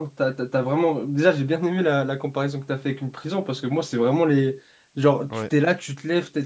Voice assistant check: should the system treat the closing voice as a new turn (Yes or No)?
No